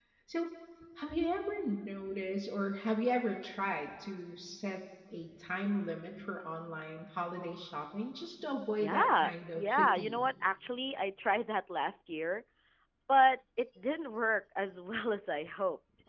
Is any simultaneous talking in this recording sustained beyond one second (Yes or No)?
Yes